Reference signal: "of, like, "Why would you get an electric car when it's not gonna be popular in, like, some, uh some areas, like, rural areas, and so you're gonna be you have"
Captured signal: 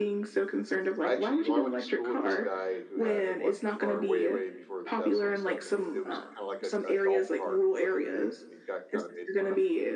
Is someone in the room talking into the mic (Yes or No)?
Yes